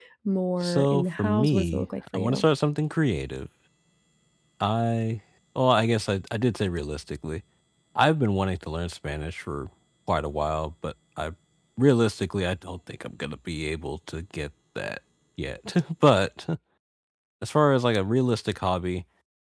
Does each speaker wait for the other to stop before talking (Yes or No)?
No